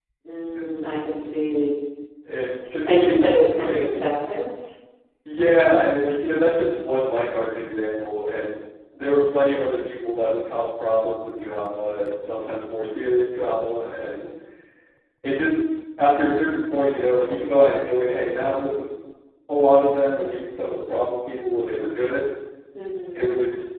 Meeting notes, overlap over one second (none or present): present